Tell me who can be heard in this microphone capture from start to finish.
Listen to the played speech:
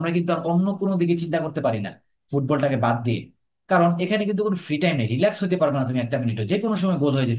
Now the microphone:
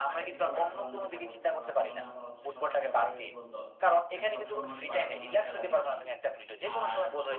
both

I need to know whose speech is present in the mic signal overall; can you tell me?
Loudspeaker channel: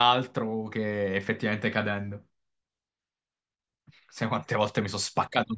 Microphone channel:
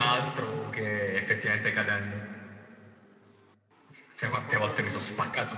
both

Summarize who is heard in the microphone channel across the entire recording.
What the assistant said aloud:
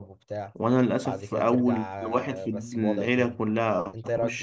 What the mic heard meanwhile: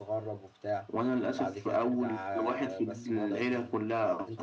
echo only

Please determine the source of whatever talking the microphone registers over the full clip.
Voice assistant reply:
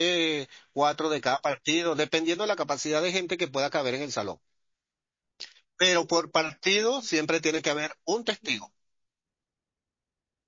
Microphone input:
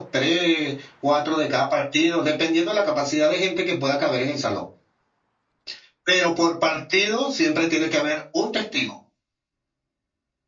echo only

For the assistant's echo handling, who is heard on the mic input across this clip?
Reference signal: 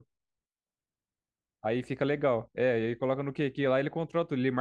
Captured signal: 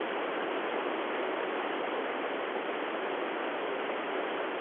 neither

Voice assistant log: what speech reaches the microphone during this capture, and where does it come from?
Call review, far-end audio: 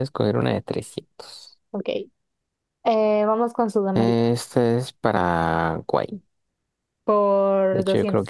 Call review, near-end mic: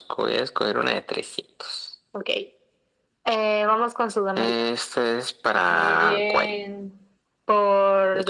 both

